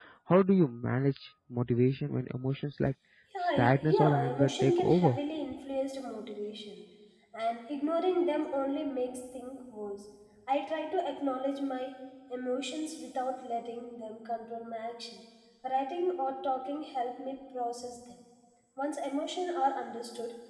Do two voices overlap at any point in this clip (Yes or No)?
Yes